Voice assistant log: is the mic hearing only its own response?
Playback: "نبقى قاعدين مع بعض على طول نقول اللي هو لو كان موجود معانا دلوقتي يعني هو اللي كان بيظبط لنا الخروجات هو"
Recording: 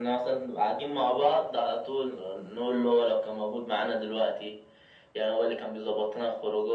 Yes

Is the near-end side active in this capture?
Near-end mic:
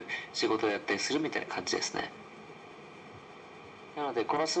No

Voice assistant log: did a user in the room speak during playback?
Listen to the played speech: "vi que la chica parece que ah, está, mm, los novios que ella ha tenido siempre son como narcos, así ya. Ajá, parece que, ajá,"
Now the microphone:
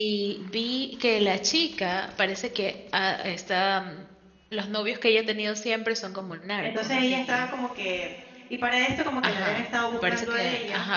Yes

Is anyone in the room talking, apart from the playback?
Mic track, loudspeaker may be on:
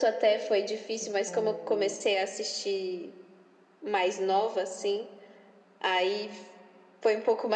Yes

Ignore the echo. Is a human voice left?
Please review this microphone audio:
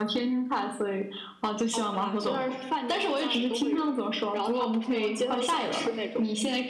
Yes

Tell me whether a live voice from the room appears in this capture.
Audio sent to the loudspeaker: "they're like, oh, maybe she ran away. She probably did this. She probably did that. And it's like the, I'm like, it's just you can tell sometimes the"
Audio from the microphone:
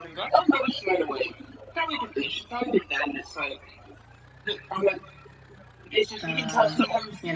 Yes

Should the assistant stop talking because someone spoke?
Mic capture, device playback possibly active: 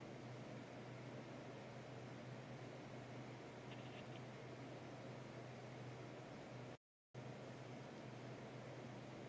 No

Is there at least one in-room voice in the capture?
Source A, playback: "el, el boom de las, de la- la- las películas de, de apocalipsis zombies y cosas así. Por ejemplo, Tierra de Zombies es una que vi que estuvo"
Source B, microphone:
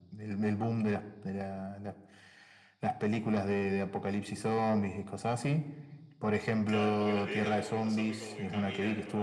Yes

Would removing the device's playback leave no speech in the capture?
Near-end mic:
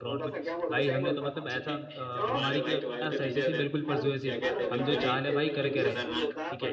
No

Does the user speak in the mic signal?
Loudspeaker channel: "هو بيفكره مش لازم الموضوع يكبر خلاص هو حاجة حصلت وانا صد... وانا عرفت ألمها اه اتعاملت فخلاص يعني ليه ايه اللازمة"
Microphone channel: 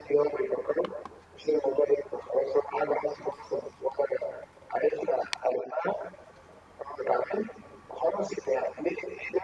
No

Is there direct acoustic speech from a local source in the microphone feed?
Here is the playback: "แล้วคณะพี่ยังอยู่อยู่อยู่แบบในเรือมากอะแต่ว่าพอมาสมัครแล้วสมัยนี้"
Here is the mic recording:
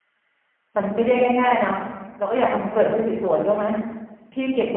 Yes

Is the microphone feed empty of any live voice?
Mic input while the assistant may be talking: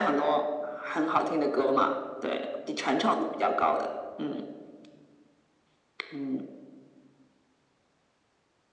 Yes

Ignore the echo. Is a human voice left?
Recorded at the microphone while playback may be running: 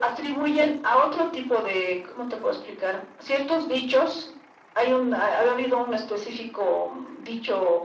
No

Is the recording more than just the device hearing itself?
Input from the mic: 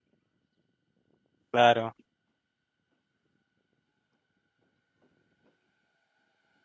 Yes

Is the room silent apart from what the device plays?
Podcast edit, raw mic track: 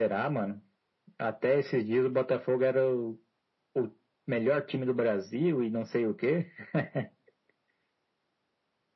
Yes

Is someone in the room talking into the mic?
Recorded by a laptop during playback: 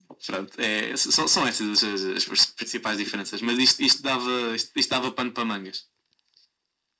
No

